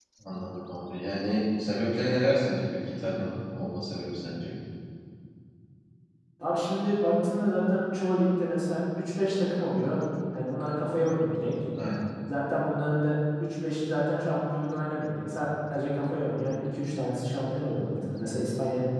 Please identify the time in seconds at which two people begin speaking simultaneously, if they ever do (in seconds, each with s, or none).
none